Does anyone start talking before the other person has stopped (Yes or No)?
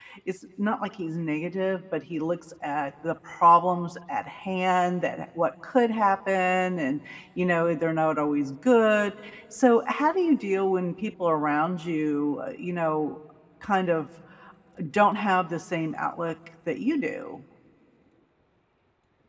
No